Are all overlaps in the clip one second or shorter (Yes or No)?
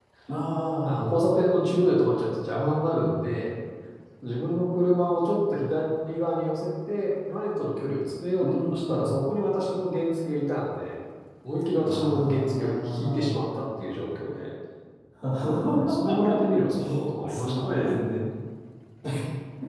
No